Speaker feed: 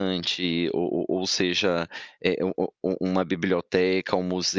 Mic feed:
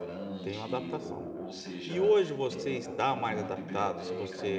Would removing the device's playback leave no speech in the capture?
No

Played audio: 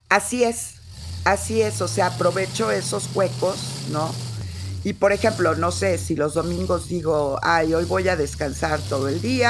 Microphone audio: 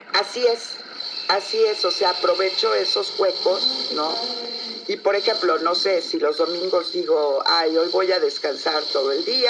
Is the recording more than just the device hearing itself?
Yes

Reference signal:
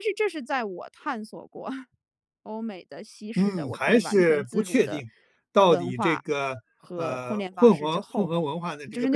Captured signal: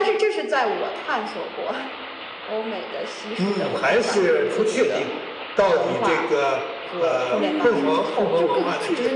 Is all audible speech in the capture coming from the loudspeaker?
No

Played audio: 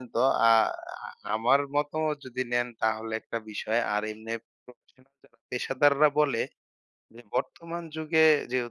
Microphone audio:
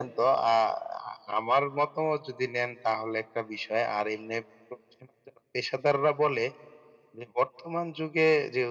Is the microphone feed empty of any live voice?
Yes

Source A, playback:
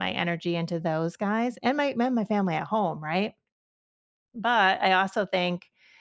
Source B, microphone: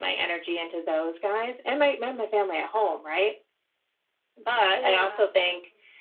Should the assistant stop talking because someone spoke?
Yes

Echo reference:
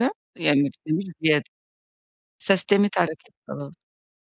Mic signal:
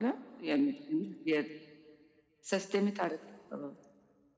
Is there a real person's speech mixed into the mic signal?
No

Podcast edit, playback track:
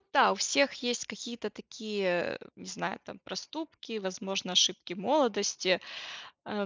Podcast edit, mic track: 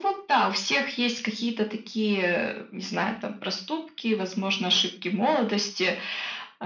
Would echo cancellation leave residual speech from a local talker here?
No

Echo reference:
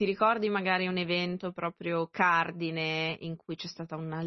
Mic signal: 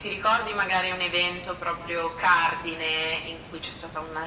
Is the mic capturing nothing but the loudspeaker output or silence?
Yes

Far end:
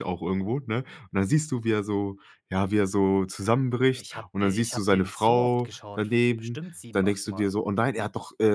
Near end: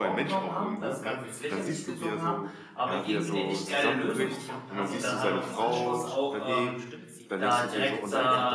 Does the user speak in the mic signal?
Yes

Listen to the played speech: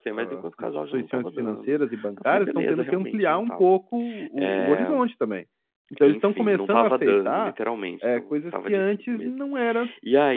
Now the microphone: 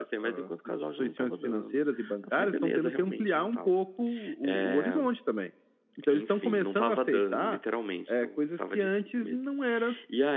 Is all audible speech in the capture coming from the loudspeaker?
Yes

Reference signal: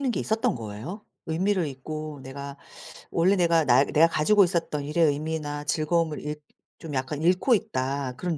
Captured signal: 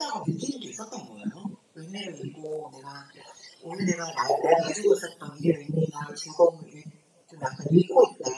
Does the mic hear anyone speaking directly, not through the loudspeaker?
No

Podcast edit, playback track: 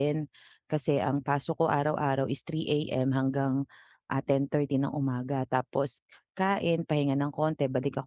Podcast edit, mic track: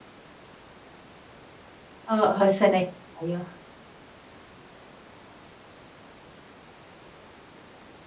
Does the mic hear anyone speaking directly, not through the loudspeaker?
Yes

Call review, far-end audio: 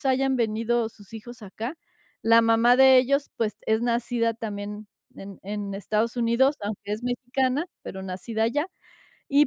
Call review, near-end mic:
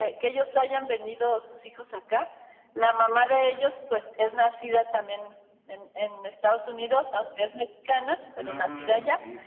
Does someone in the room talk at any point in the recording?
Yes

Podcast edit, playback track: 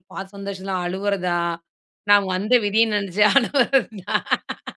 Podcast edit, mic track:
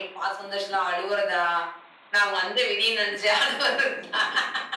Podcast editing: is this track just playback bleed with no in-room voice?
Yes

